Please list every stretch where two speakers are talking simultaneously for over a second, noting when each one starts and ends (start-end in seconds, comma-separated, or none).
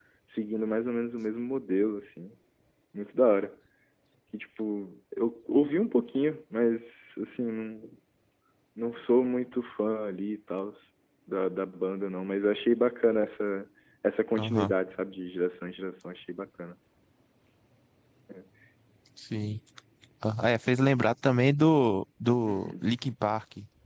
none